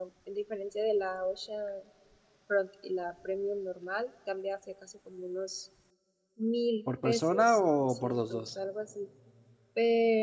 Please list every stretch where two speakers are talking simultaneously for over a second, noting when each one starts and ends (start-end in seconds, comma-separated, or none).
7.0-8.5